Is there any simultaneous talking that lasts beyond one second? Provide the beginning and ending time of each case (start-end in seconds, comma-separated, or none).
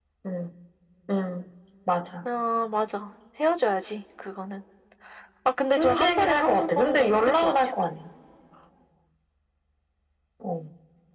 5.7-7.5